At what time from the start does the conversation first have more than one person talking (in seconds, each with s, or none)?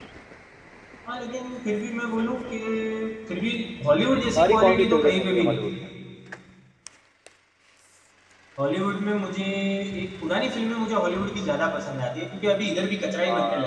4.4 s